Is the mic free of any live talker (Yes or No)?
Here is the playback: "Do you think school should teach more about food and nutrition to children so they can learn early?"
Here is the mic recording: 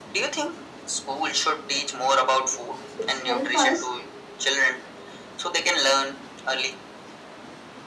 No